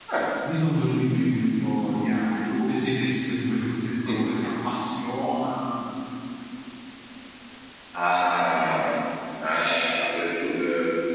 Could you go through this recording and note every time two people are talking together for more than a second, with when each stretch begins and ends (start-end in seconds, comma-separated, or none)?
none